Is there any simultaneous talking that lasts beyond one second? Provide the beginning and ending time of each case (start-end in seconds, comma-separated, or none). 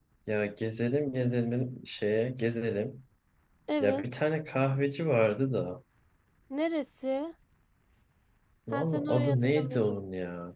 8.7-10.0